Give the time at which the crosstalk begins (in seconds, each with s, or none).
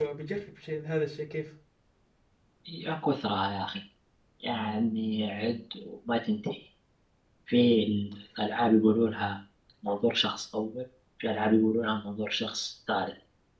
none